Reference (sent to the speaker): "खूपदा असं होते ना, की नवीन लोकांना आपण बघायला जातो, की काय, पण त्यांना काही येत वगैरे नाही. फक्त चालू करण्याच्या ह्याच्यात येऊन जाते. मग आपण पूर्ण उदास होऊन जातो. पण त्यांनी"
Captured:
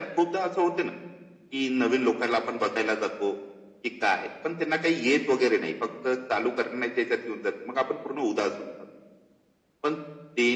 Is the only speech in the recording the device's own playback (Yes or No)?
Yes